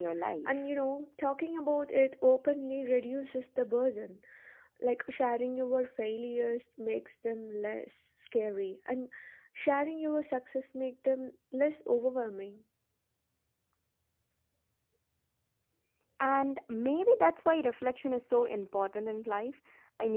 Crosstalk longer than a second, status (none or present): none